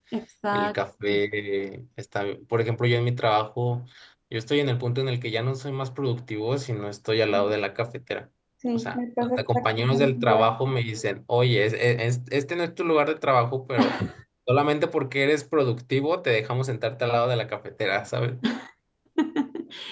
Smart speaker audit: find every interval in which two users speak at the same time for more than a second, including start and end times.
8.8-10.6

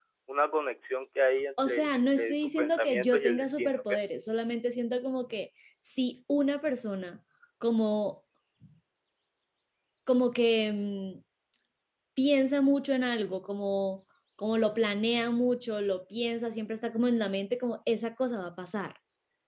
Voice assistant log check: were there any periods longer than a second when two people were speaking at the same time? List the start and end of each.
1.6-3.9

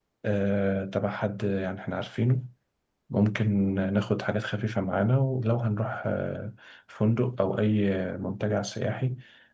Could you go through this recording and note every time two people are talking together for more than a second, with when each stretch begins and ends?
none

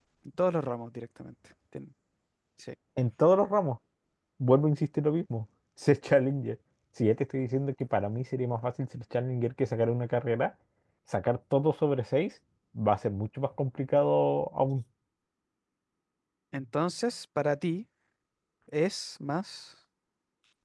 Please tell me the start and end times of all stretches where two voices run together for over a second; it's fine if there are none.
none

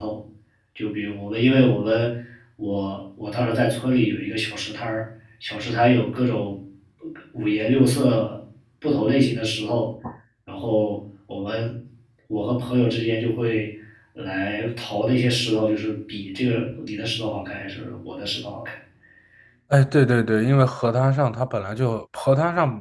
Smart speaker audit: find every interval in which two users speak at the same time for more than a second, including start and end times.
none

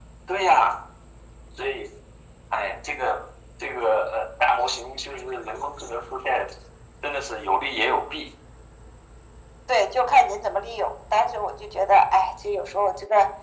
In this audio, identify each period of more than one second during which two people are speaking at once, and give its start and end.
none

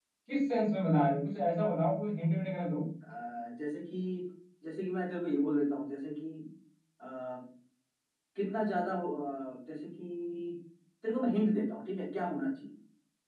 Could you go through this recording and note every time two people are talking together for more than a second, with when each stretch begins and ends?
none

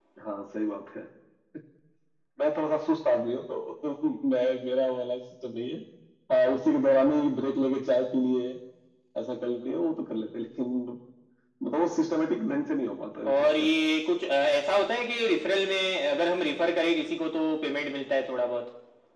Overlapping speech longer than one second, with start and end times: none

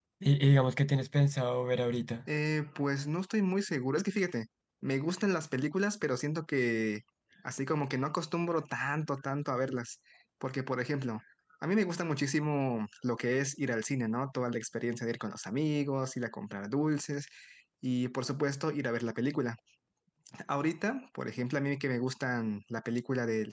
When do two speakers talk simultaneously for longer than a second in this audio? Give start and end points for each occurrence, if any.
none

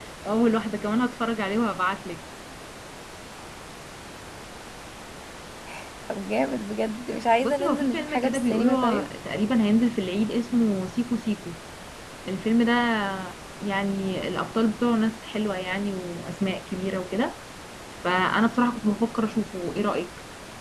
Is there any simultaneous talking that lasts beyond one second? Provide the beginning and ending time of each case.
7.4-9.1

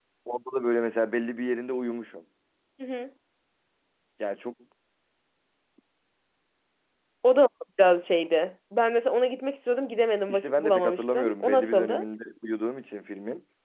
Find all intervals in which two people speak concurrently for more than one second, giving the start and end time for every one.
10.3-12.1

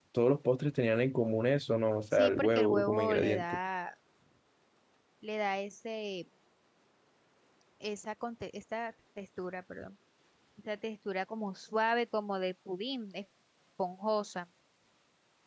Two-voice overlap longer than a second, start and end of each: 2.1-3.4

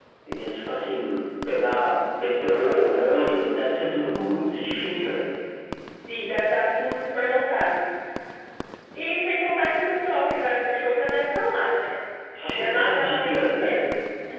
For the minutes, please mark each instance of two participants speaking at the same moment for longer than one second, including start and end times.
12.5-13.8

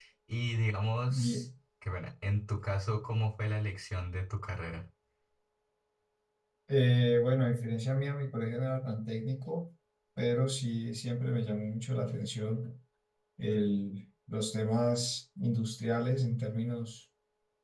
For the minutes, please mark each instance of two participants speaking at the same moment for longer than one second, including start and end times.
none

